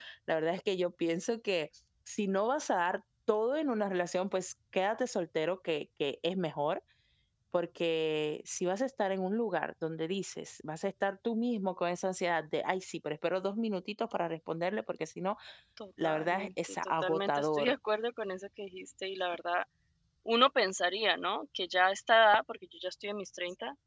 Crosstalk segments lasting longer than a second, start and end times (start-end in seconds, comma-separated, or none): 16.0-17.7